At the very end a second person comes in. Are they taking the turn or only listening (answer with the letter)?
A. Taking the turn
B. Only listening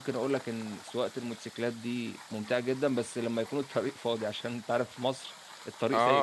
A